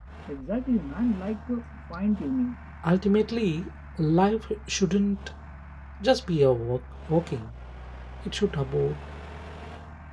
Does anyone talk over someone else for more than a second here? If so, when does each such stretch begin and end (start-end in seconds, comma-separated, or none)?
none